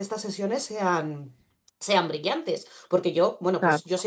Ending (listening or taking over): listening